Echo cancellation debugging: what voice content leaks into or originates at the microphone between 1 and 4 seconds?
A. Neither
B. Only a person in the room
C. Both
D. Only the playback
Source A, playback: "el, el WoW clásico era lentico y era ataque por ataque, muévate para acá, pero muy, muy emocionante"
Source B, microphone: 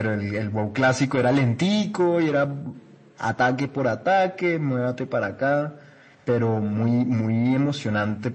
D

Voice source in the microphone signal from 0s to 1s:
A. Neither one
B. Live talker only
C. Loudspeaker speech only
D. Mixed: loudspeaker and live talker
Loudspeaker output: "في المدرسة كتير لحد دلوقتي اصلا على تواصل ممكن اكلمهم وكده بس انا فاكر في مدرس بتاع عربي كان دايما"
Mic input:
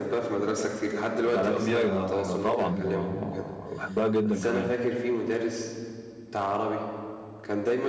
C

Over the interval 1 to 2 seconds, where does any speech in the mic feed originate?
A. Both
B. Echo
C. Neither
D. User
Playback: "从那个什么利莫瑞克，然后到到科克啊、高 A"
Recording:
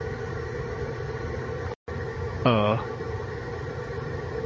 C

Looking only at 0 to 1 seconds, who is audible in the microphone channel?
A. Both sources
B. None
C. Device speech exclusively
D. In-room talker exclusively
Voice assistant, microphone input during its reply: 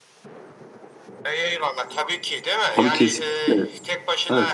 B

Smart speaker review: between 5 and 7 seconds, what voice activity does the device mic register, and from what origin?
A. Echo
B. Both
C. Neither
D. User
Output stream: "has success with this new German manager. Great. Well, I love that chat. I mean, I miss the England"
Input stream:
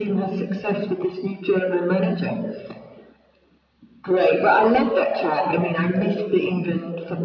A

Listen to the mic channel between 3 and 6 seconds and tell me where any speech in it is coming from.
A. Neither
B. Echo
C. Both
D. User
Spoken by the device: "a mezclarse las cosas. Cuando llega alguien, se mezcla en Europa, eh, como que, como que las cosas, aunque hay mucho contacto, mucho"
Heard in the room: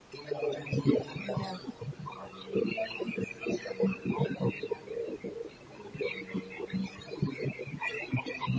B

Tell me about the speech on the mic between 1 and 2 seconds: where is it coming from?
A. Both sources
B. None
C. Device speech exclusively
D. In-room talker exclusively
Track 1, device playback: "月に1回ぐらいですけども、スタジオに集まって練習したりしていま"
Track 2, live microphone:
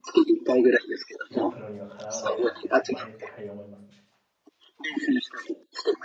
A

